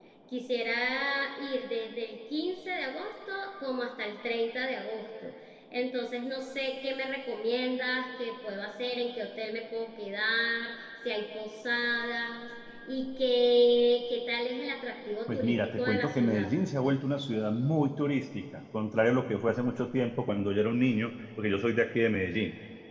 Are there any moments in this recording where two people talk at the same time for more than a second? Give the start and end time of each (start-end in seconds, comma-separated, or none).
15.3-16.5